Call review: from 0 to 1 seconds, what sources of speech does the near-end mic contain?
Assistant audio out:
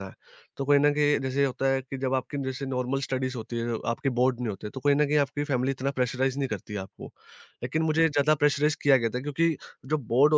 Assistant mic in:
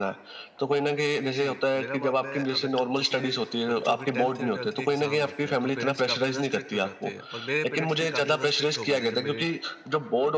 echo only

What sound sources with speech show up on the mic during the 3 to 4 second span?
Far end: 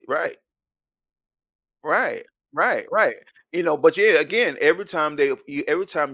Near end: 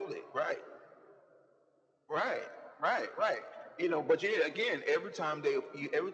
echo only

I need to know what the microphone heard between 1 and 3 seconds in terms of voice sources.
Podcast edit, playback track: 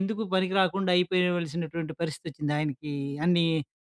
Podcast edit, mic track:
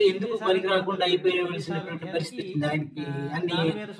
both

